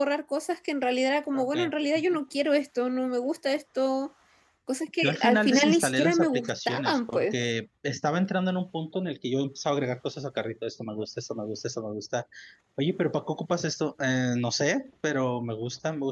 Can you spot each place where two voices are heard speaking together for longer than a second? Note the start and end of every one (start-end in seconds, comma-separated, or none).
5.0-7.3